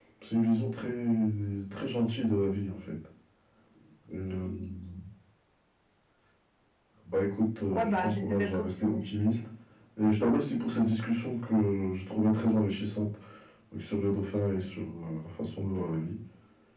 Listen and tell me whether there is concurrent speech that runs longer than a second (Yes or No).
Yes